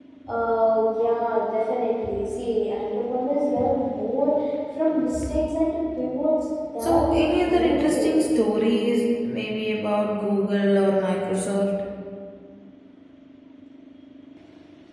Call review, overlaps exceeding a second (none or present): present